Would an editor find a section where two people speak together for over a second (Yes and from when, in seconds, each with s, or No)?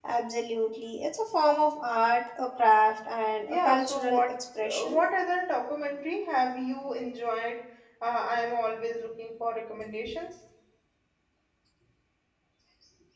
Yes, from 3.5 s